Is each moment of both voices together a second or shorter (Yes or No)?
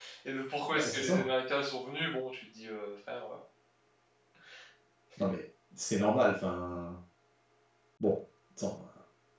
Yes